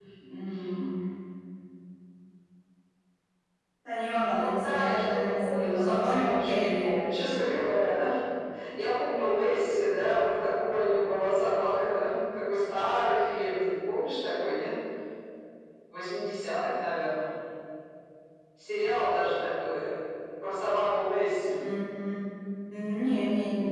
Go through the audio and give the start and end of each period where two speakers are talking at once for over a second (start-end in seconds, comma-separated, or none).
4.3-6.9